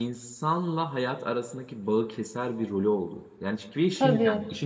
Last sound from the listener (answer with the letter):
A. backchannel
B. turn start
A